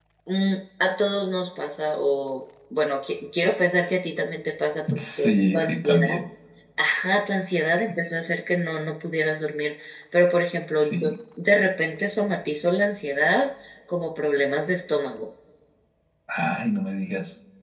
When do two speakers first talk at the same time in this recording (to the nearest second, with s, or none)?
5 s